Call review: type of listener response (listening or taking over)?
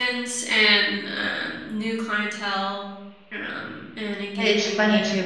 taking over